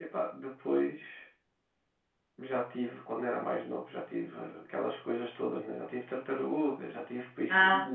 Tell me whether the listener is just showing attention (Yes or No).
Yes